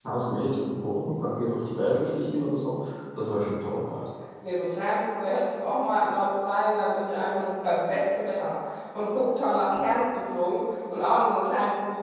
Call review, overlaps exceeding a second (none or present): none